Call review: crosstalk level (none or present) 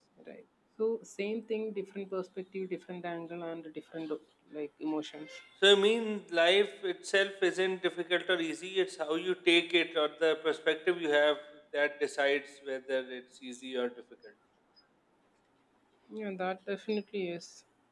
none